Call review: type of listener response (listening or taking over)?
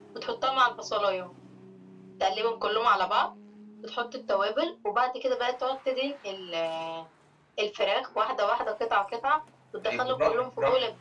taking over